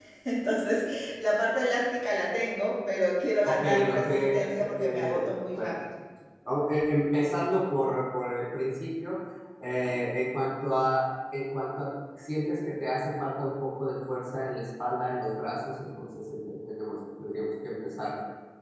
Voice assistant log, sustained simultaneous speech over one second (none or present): present